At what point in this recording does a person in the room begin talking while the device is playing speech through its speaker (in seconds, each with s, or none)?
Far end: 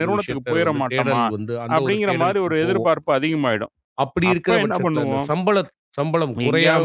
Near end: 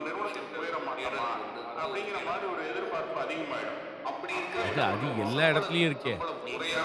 4.6 s